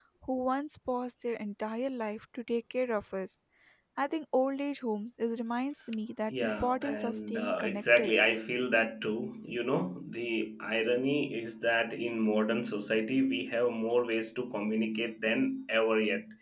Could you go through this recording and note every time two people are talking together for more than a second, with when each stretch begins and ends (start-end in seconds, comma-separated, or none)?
6.3-8.1